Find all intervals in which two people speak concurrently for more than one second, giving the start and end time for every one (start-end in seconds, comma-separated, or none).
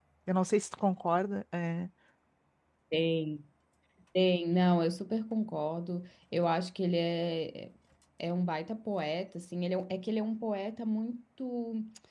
none